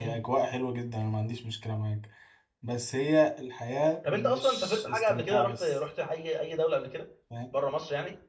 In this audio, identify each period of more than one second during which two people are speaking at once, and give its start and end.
4.1-5.7

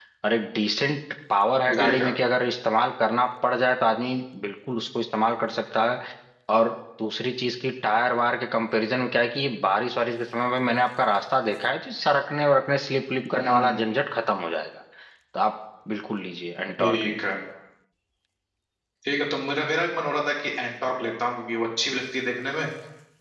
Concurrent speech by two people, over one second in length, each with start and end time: none

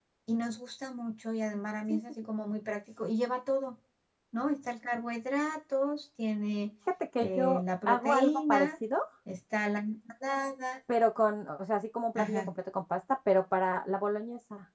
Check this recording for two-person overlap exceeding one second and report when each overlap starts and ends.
7.2-8.7

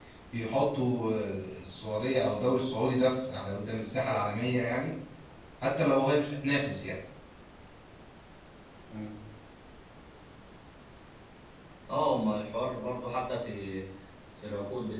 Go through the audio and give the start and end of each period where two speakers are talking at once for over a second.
none

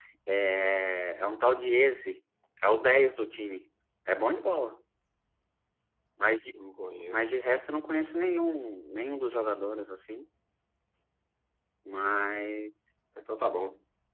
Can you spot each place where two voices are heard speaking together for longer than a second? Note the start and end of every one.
none

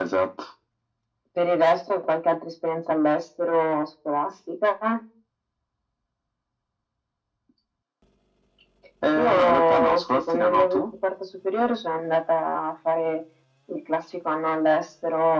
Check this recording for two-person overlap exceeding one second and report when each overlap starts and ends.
9.1-10.8

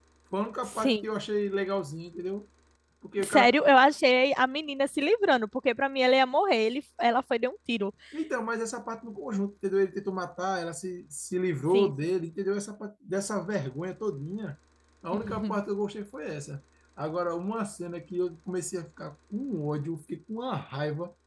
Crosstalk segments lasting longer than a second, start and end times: none

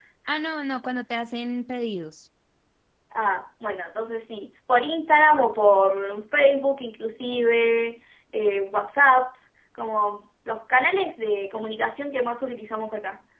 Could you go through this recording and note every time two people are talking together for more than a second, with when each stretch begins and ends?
none

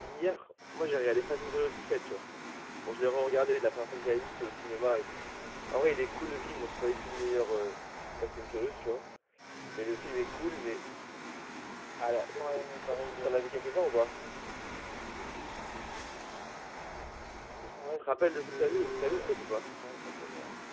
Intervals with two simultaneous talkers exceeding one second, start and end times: 12.4-13.7, 18.0-19.7

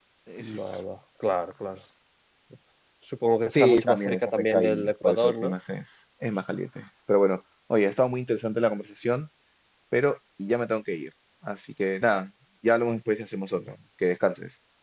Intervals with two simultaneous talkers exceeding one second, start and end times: 3.4-5.6

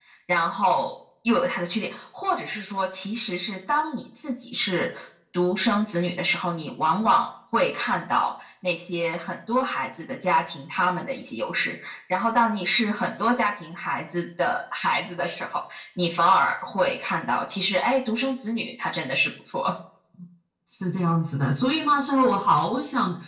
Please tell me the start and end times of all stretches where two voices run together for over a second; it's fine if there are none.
none

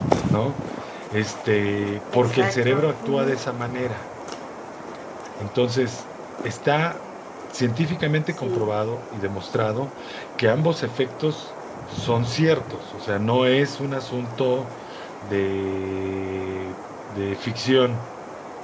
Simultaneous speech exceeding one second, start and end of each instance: 2.1-3.4

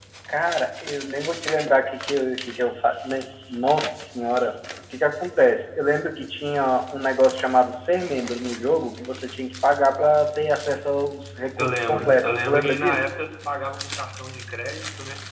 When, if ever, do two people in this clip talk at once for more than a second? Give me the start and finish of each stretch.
11.6-13.0

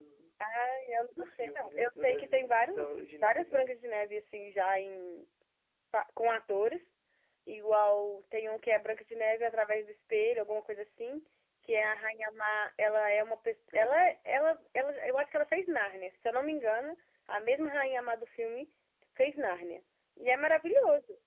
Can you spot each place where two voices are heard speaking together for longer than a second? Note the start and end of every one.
1.2-3.7

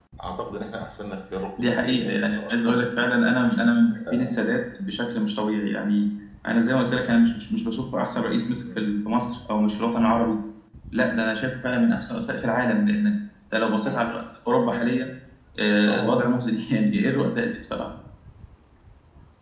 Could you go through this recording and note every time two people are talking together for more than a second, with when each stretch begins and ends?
1.6-2.8

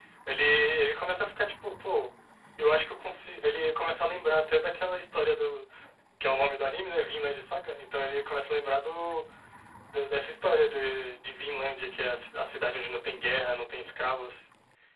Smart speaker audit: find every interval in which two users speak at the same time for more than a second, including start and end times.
none

